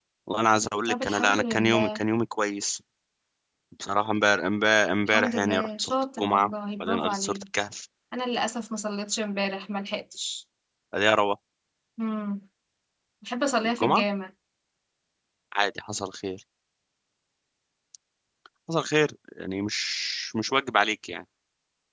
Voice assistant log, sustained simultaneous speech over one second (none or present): present